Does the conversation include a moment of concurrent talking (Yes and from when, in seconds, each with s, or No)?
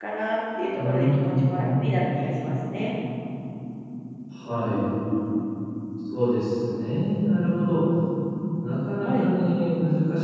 Yes, from 0.7 s